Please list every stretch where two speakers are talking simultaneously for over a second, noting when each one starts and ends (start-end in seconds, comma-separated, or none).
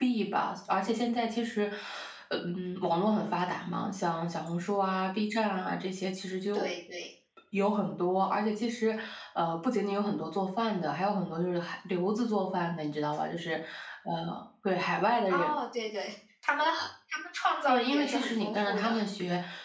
17.7-18.9